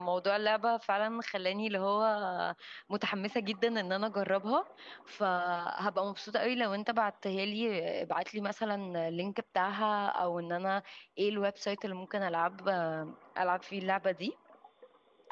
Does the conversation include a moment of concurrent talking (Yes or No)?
No